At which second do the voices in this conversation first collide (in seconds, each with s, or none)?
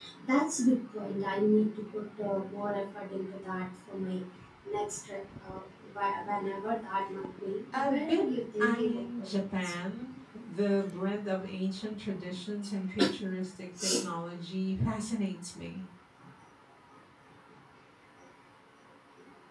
7.7 s